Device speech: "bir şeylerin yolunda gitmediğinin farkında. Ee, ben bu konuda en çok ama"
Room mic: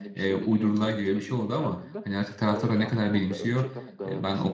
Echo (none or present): present